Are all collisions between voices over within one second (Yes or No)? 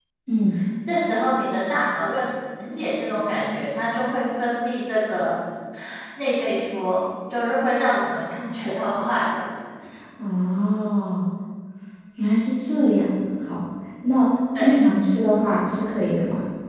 Yes